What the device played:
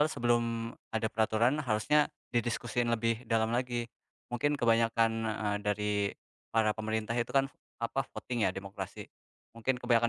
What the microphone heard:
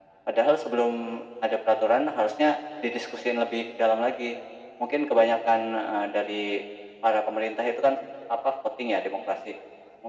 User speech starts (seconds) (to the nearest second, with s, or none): none